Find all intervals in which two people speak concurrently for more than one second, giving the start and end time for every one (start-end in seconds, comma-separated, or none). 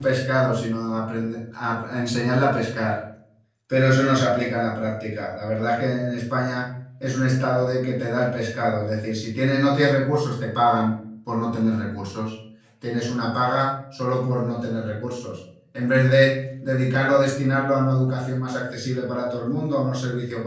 none